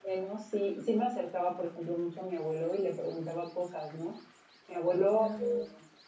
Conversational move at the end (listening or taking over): listening